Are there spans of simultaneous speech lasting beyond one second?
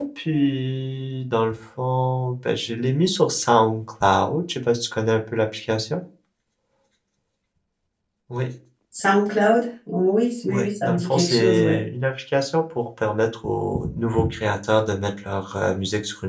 Yes, from 10.5 s

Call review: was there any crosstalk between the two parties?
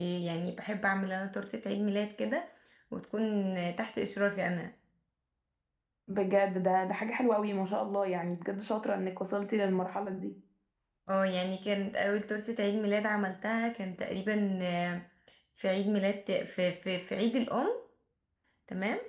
No

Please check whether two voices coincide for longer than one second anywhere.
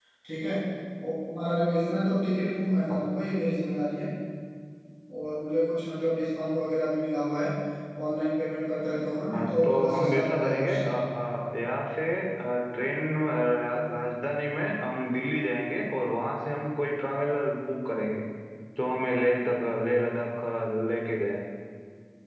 Yes, from 9.3 s

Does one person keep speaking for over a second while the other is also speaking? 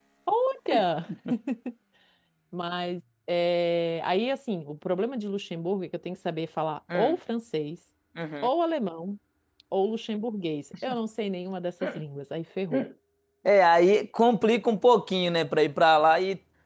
No

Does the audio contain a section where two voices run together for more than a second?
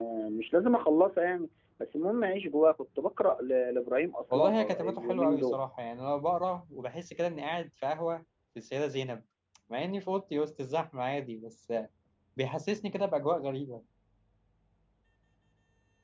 Yes, from 4.3 s

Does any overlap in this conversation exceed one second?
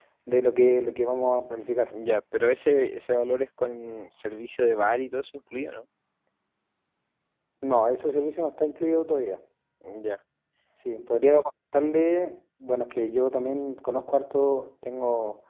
No

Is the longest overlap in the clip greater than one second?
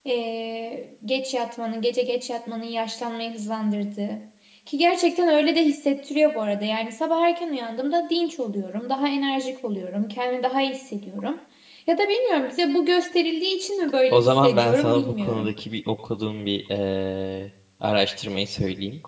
Yes, from 14.1 s

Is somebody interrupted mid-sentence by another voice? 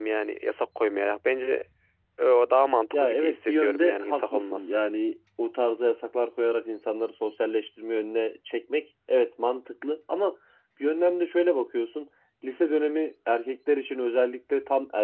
Yes, from 2.9 s

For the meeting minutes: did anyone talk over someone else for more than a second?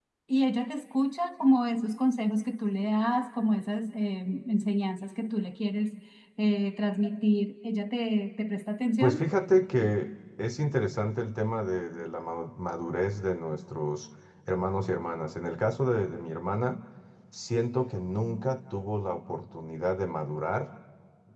No

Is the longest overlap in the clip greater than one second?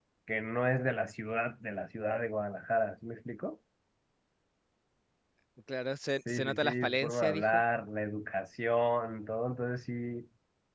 Yes, from 6.3 s

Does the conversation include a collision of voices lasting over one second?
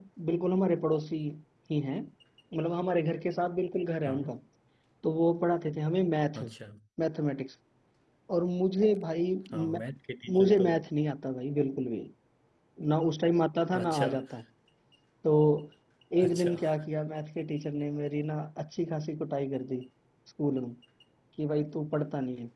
No

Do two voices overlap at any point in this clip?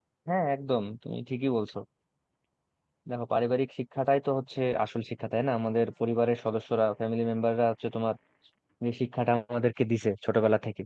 No

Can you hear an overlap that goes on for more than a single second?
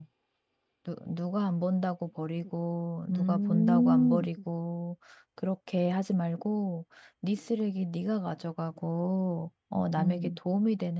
Yes, from 3.1 s

